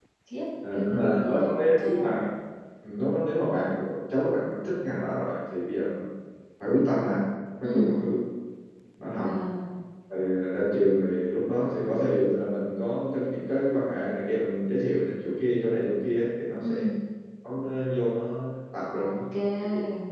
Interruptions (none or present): present